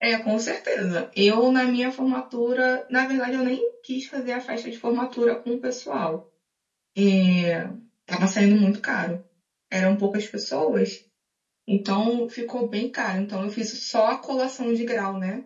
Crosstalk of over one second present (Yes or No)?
No